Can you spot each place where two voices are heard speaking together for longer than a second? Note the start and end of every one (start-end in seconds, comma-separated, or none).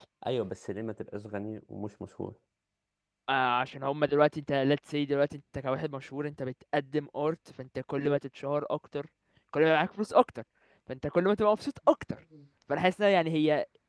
none